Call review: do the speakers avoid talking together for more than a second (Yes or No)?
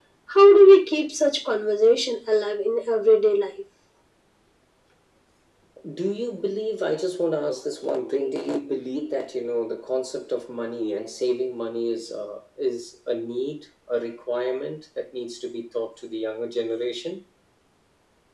Yes